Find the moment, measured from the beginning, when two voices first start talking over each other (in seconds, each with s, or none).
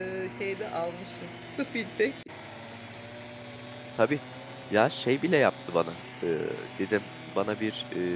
none